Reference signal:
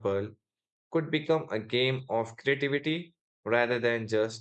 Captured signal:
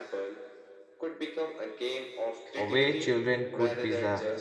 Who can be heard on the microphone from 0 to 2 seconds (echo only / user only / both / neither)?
echo only